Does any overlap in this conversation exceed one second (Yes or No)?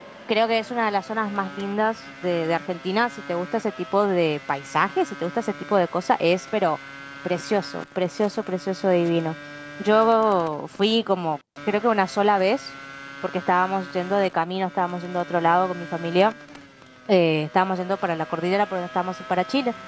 No